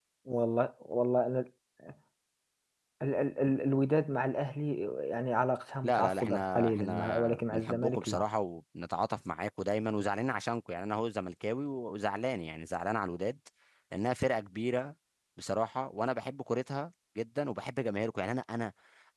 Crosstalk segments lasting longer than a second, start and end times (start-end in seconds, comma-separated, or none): 5.8-8.2